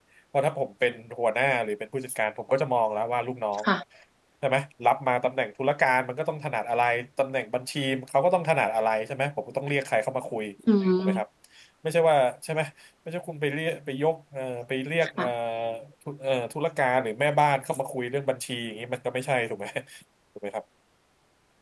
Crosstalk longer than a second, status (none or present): none